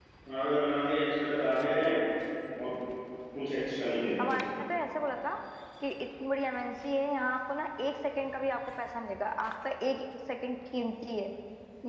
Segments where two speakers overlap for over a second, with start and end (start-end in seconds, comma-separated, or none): none